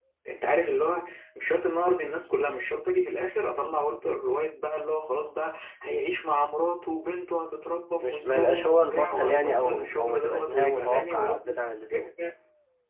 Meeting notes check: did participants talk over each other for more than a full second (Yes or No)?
Yes